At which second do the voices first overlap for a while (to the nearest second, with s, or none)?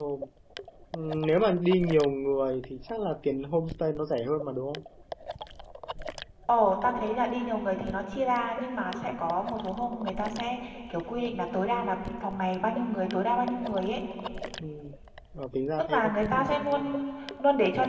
16 s